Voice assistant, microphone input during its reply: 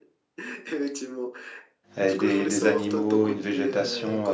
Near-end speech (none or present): present